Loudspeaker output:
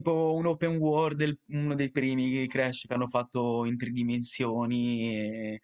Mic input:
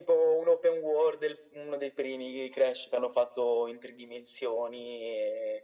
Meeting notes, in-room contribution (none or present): none